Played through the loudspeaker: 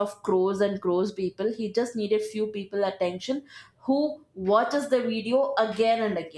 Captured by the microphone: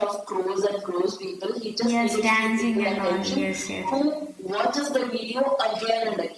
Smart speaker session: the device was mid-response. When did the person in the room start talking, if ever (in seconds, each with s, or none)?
1.8 s